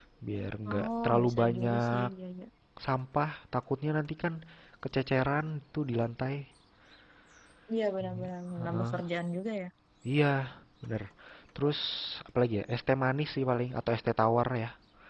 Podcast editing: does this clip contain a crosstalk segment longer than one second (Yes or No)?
Yes